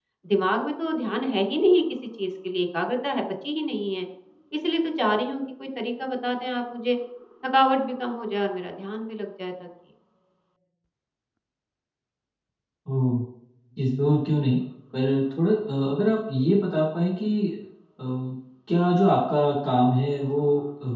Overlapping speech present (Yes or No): No